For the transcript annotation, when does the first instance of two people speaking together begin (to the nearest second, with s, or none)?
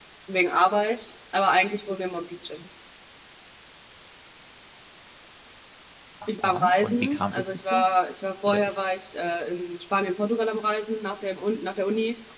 6 s